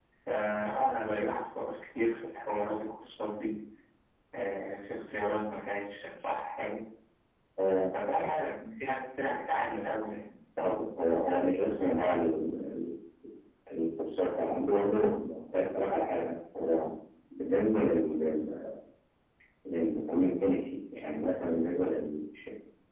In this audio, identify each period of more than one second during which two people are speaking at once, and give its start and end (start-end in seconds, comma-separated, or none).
none